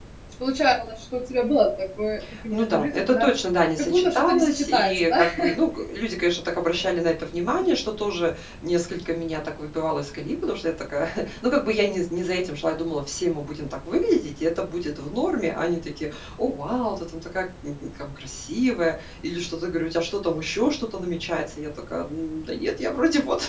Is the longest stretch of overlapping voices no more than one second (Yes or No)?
No